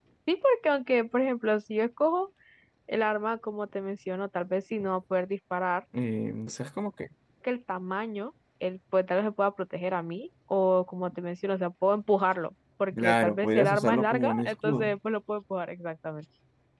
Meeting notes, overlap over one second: present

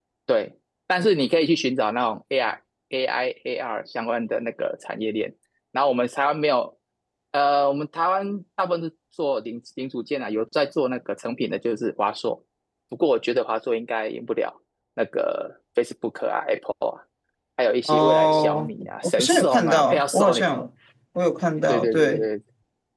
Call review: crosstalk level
present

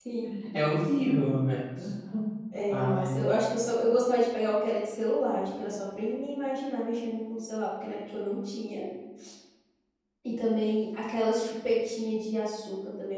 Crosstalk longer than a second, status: none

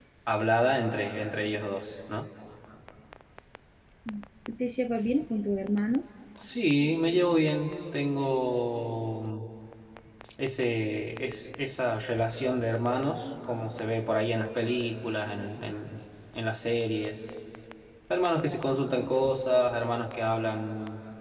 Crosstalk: none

